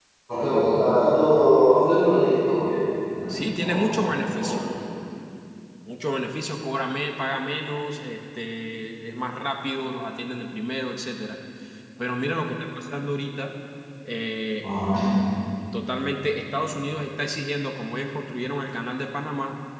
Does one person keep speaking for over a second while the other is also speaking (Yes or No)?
Yes